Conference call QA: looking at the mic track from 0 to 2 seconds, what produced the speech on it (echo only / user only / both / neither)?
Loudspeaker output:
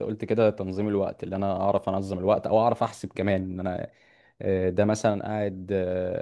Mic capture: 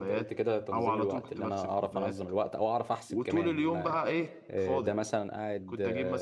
both